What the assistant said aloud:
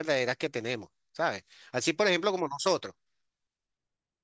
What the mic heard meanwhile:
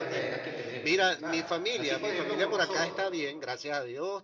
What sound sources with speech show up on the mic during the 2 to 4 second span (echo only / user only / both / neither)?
both